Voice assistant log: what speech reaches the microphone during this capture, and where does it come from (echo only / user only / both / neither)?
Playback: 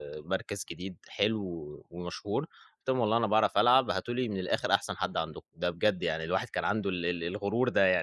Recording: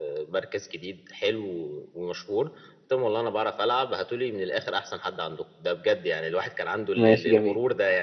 both